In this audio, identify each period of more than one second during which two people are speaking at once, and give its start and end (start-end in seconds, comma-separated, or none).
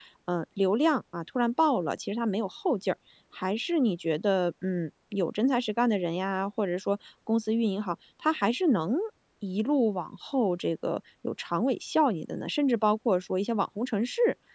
none